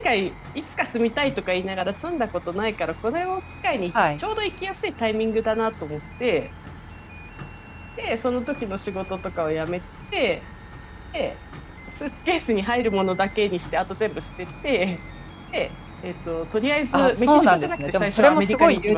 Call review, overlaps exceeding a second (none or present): present